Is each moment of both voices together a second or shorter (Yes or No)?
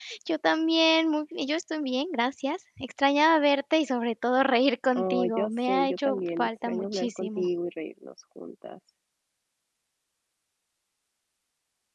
No